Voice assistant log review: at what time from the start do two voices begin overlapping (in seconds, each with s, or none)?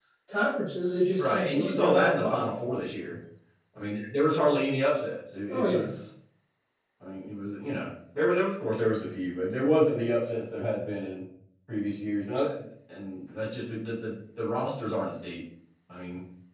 1.2 s